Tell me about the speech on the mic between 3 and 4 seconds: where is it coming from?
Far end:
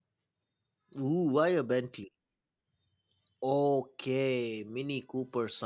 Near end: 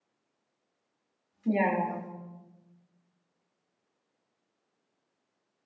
neither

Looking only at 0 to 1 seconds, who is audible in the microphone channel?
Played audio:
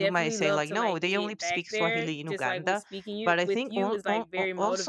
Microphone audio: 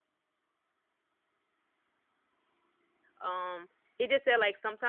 neither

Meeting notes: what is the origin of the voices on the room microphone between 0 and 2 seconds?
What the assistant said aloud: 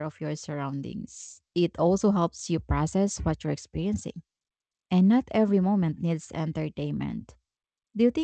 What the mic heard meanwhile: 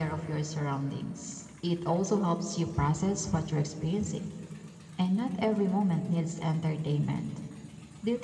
echo only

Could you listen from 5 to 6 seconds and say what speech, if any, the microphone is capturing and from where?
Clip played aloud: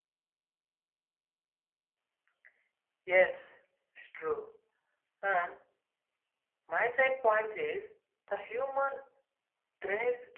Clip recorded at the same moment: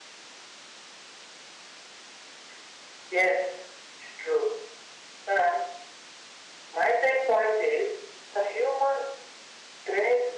echo only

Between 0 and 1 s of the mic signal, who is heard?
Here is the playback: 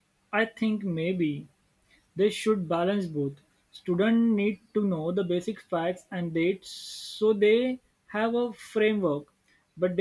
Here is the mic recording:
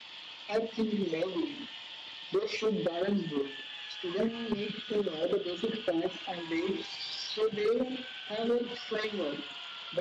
echo only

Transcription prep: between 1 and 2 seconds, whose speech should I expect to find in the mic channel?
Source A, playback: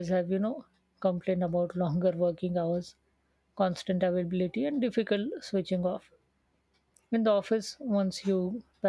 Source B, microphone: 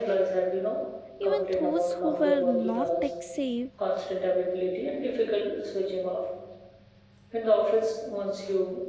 both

